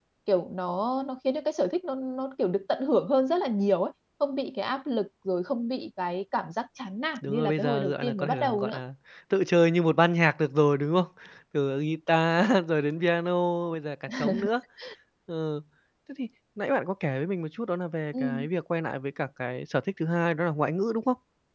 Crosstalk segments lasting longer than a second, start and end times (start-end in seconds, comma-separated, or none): 7.2-8.8